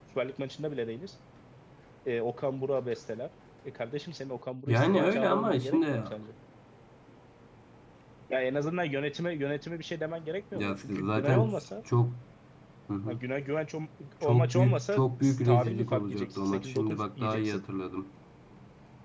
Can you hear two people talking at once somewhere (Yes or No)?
Yes